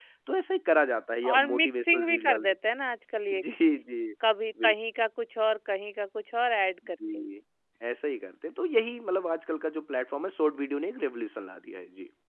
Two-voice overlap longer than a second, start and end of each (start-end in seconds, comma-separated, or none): 1.4-2.5